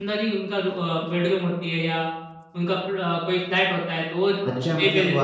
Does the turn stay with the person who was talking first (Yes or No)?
No